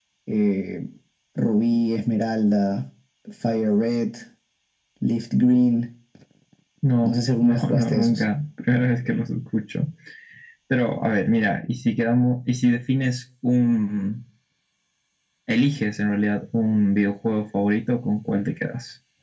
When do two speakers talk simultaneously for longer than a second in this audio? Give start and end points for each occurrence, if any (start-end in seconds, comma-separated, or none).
7.0-8.2